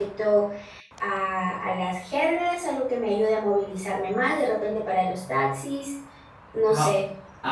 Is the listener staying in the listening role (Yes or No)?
No